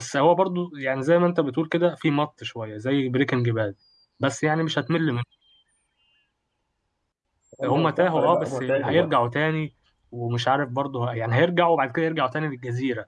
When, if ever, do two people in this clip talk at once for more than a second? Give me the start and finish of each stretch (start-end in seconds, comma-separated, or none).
7.6-9.1